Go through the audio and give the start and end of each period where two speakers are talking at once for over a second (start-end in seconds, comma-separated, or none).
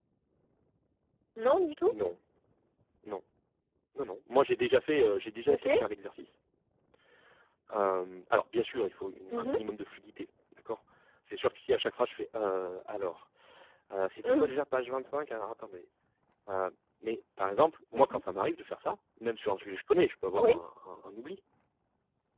none